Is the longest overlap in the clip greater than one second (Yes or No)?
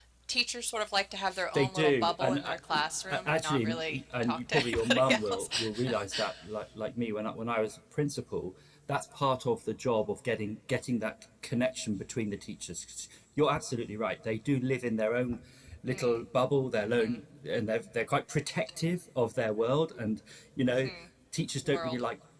Yes